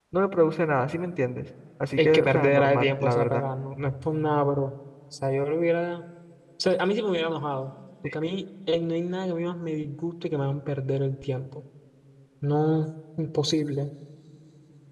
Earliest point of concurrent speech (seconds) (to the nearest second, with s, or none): 2 s